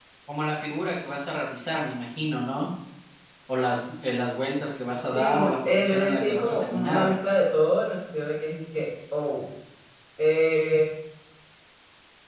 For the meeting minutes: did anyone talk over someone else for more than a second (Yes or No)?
Yes